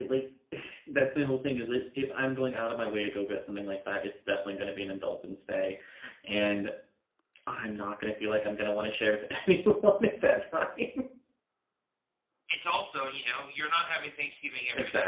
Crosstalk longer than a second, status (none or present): none